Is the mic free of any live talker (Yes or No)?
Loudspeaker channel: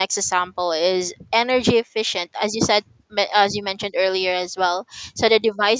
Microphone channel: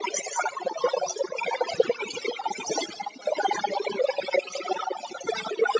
Yes